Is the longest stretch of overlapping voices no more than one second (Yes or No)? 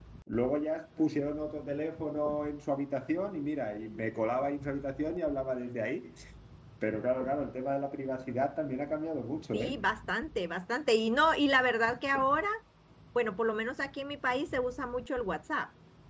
Yes